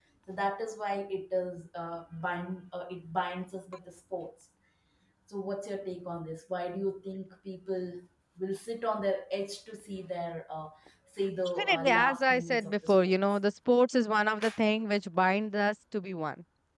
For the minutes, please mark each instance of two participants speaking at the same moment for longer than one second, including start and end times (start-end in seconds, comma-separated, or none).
11.6-13.2